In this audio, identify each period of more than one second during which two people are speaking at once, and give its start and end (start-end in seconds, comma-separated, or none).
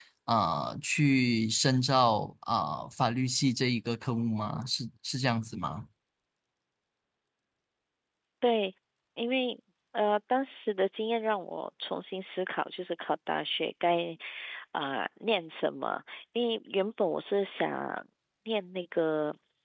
none